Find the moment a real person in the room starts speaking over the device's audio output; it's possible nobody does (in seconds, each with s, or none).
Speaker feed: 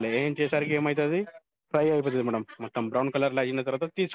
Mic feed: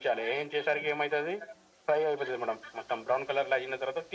none